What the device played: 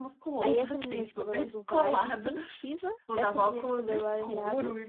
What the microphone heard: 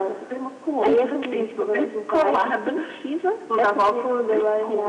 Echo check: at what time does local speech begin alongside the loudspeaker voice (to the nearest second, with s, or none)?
none